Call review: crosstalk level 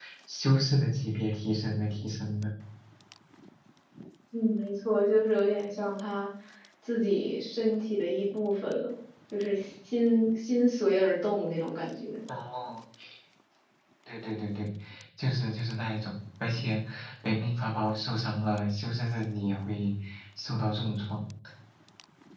none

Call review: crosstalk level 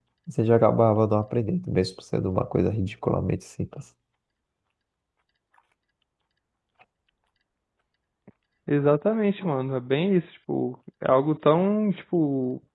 none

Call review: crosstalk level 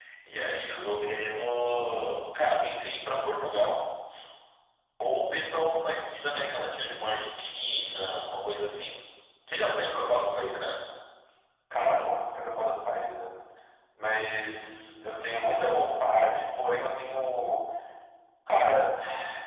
none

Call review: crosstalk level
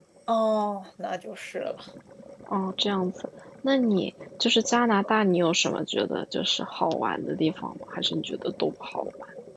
none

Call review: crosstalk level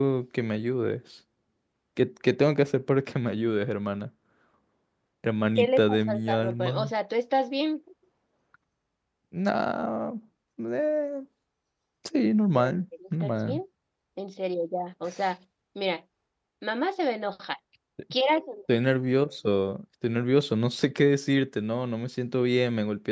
present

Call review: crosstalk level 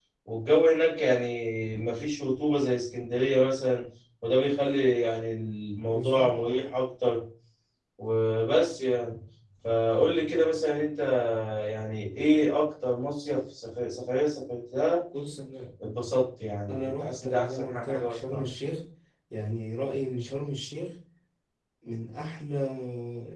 present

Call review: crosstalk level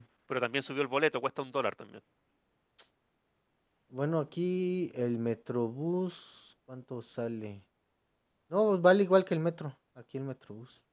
none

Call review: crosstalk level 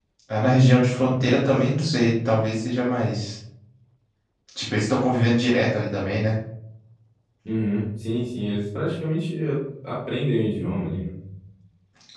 none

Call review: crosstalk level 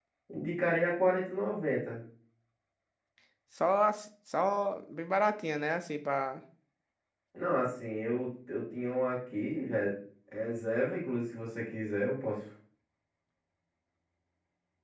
none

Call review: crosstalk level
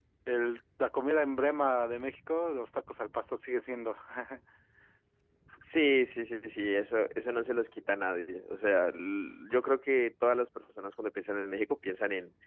none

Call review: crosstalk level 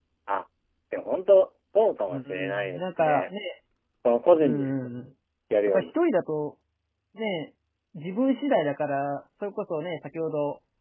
present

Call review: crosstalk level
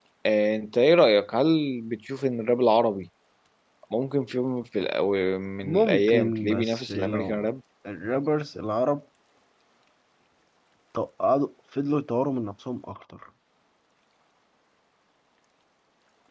present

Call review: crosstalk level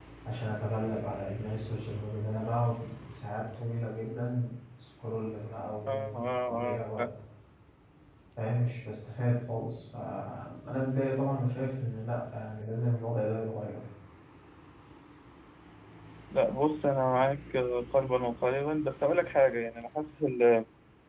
present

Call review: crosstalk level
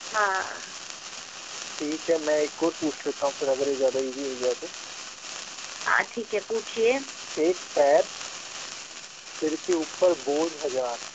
none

